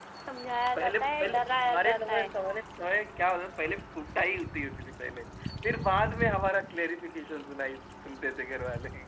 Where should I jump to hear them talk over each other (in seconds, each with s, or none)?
0.8 s